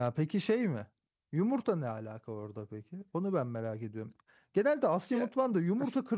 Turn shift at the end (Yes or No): No